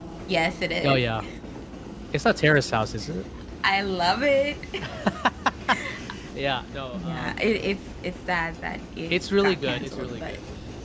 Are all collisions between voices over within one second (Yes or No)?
No